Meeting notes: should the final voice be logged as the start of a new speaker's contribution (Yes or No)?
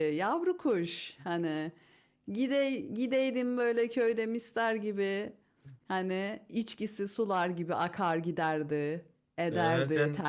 Yes